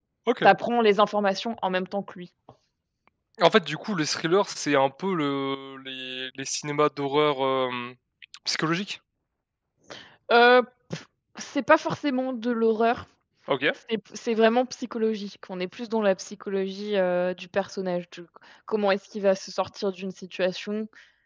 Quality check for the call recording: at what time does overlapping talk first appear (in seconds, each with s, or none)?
none